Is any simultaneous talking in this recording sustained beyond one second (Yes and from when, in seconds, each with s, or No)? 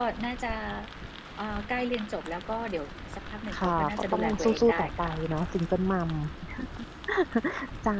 Yes, from 3.5 s